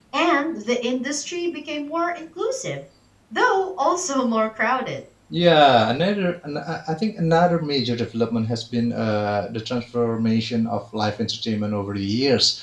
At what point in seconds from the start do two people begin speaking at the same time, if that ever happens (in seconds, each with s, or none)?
none